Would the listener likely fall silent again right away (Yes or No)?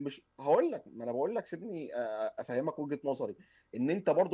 Yes